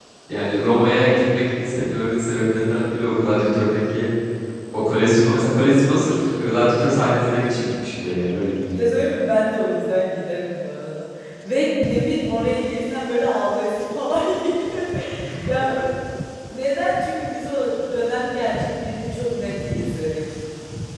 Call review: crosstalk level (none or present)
none